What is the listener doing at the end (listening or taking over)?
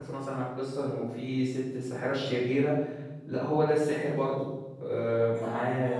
taking over